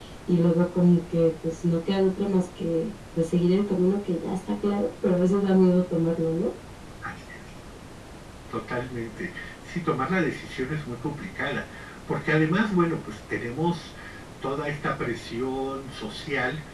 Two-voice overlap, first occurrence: none

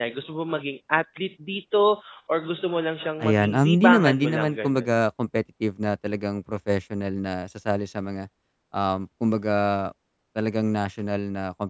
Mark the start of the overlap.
3.2 s

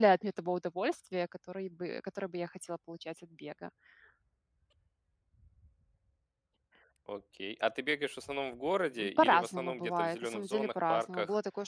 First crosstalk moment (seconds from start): 9.0 s

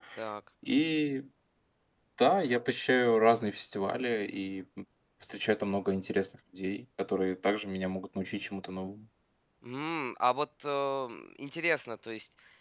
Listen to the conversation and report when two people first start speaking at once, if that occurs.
none

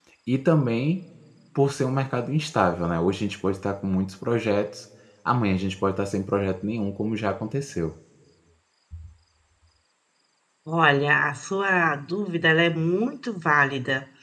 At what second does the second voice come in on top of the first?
none

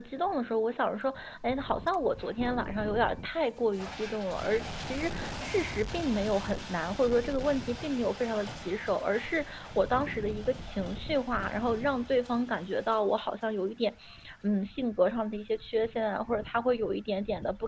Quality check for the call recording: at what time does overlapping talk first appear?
none

